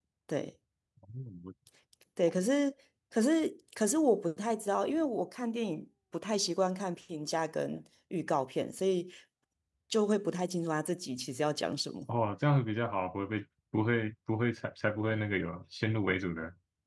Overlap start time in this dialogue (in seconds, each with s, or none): none